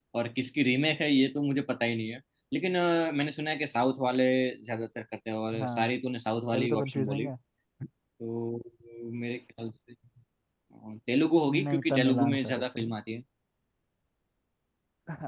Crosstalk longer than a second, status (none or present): present